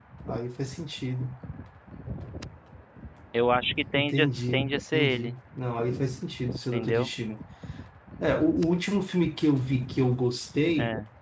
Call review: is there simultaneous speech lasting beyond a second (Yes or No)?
Yes